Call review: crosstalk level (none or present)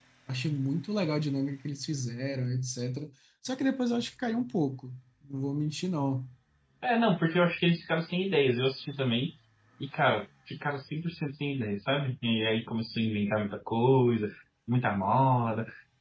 none